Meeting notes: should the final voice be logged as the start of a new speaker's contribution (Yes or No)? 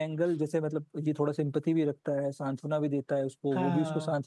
No